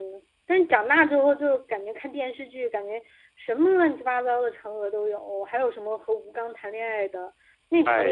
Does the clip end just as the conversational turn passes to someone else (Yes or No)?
No